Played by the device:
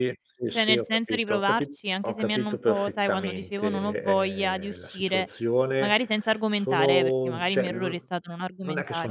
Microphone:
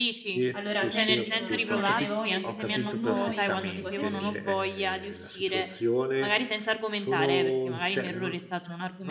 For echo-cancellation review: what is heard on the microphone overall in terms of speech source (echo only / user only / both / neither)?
both